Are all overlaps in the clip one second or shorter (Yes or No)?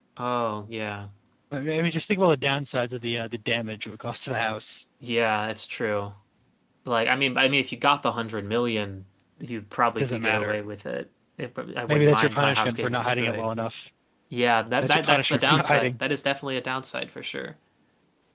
No